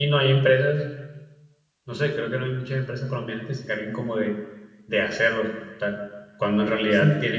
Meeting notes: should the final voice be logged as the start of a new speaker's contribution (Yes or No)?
No